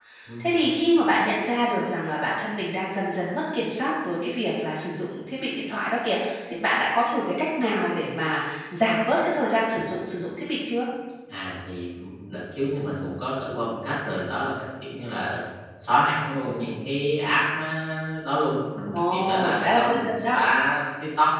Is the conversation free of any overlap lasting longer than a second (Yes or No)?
No